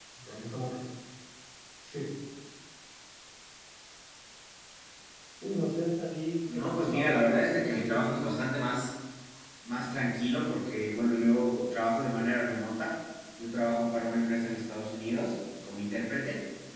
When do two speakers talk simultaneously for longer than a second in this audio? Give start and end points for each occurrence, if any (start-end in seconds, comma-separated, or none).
6.5-8.3